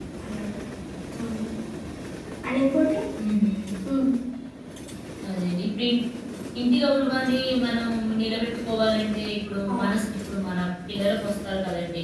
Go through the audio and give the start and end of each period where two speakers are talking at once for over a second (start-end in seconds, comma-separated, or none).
none